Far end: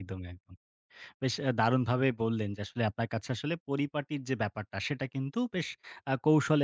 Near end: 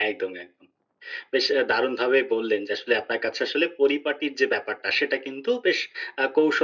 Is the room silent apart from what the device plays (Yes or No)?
Yes